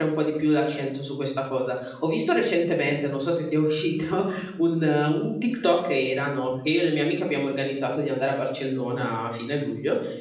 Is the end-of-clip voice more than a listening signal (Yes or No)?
No